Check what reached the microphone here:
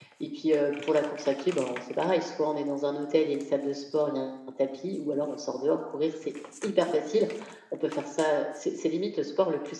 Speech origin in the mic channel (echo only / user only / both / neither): echo only